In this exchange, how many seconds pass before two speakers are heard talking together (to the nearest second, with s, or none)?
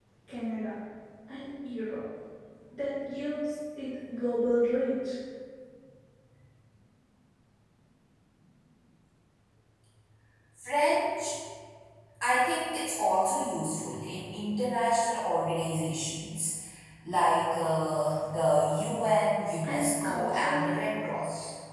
20 s